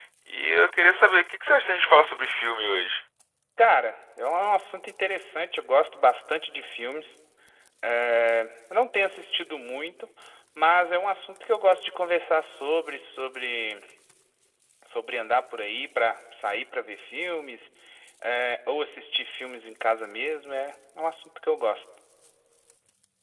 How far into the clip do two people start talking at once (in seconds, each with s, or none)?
none